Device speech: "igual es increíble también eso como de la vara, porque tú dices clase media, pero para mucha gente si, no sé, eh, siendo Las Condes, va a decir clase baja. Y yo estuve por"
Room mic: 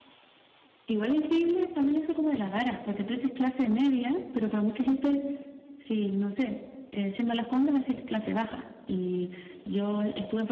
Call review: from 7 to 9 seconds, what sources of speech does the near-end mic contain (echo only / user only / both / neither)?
echo only